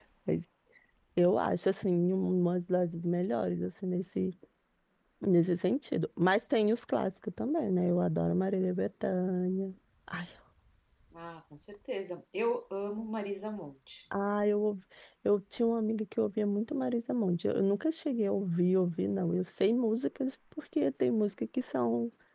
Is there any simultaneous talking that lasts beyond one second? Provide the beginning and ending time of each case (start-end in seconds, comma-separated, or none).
none